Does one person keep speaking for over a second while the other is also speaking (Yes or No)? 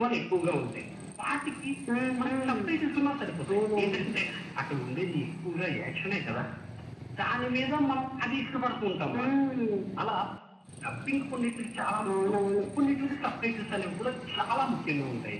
No